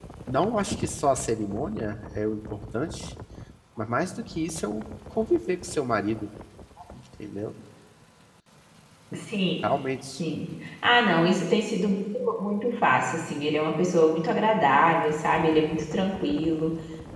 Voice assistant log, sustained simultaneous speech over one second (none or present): none